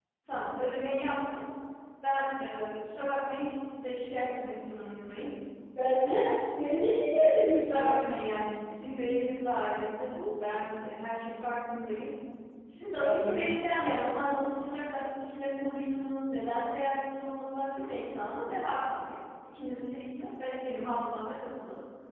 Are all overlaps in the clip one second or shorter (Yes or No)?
Yes